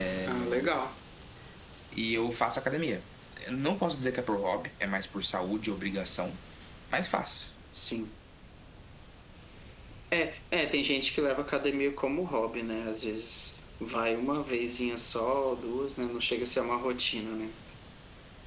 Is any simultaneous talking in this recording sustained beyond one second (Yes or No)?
No